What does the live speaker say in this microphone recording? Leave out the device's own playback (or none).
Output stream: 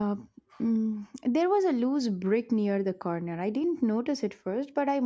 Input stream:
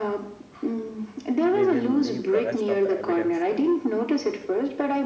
We will leave the rest of the evidence them.